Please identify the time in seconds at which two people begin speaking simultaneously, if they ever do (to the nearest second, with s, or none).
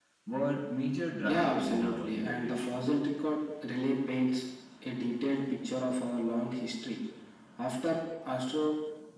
1 s